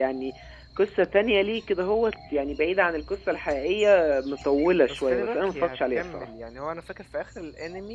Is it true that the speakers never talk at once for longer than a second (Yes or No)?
No